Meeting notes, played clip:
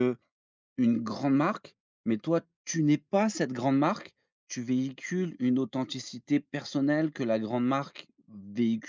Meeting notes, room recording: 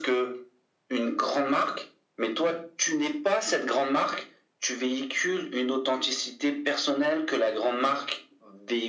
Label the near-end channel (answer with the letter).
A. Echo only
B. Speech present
A